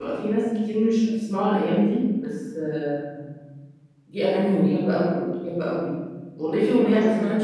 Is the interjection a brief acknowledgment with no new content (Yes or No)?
Yes